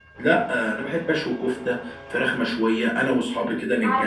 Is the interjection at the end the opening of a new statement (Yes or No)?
No